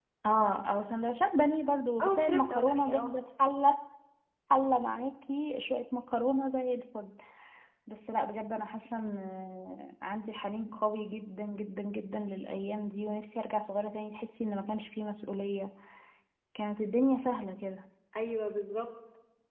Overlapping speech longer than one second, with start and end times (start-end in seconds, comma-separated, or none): 2.0-3.2